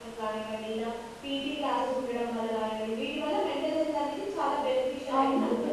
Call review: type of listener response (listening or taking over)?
taking over